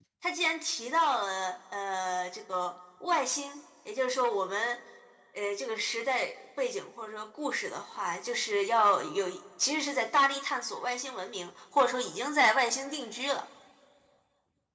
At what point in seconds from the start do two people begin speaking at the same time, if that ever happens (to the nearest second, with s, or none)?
none